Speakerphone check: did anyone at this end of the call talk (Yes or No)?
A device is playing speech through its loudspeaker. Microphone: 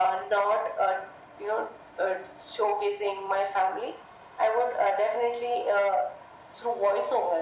No